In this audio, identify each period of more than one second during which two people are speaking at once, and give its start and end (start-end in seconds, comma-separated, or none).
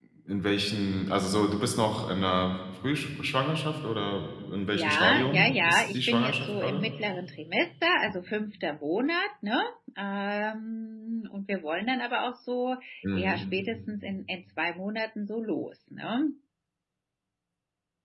4.7-6.8